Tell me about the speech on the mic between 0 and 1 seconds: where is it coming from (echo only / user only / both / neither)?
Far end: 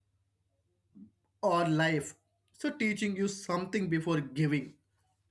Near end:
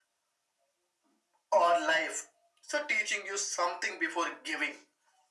neither